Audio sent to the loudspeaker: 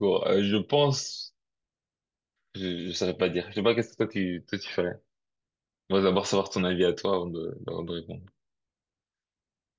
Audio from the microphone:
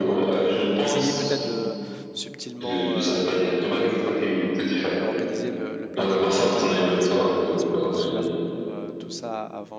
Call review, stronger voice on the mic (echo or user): echo